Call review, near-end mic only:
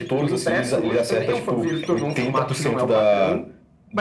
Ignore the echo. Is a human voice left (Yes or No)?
No